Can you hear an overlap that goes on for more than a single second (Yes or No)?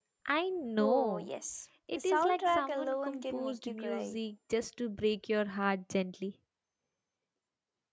Yes